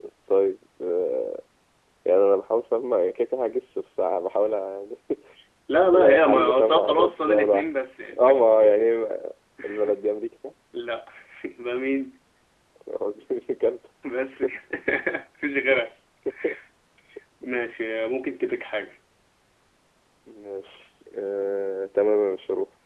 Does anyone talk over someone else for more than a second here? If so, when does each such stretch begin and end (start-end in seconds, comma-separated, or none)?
5.9-7.7